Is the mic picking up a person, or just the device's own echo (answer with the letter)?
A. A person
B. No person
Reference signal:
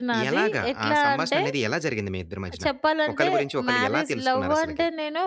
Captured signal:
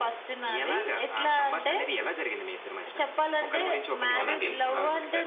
A